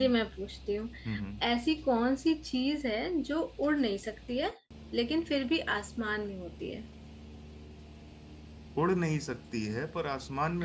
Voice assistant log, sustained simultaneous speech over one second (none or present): none